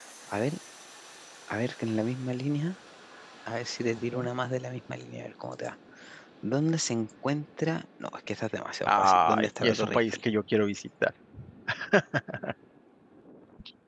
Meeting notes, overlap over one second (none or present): present